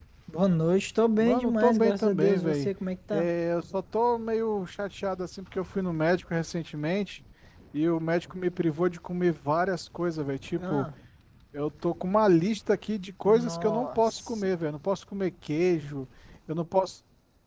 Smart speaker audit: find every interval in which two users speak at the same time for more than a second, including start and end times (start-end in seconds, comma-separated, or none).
1.2-2.7, 13.2-14.5